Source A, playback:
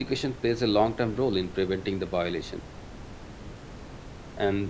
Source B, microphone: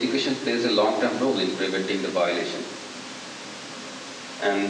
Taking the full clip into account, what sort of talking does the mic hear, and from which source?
echo only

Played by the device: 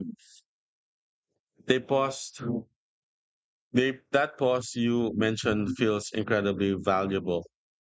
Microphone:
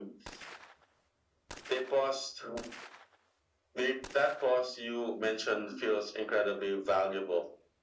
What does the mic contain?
echo only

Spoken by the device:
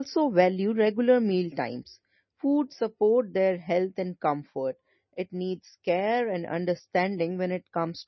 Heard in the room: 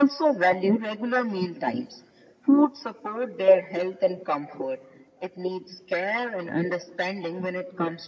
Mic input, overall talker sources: echo only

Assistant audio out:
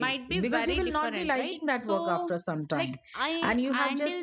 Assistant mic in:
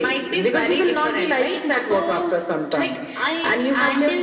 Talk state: echo only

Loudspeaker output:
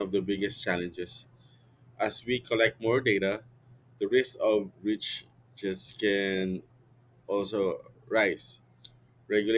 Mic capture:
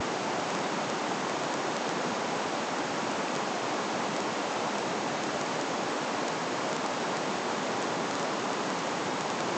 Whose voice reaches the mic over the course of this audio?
neither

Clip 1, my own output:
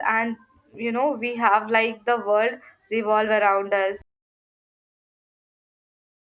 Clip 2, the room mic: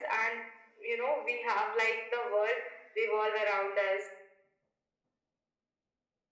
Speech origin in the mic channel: echo only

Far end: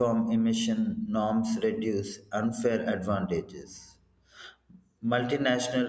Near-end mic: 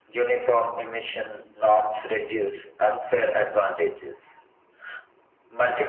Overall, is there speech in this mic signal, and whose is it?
echo only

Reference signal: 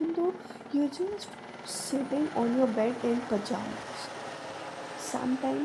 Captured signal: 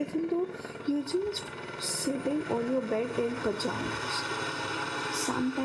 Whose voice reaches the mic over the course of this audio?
echo only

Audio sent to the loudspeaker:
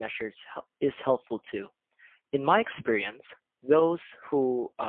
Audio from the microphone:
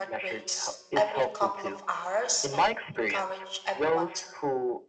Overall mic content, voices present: both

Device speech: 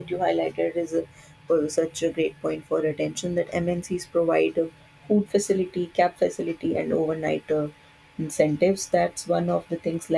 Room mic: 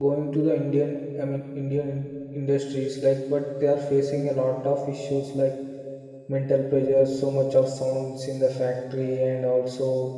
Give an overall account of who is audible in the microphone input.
user only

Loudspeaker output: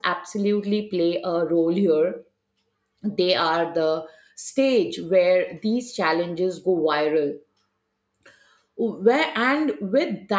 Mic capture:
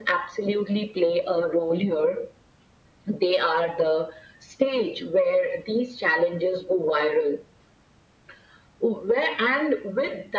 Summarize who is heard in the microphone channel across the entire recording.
echo only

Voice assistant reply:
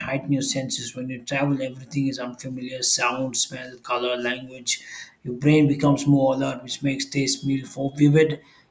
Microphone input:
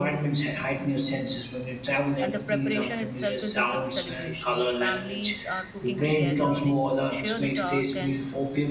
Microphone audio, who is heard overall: both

